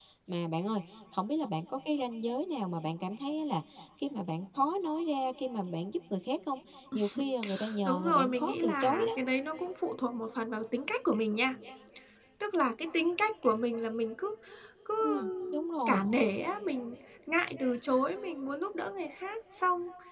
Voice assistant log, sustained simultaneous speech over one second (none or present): present